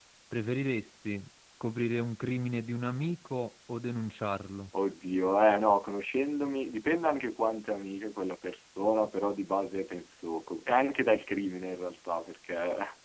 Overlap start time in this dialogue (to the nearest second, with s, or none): none